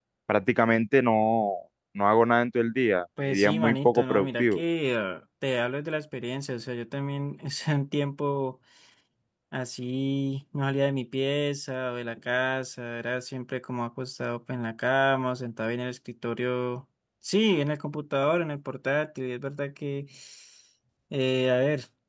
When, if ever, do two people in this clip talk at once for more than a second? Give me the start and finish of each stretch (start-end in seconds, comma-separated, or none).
3.2-4.6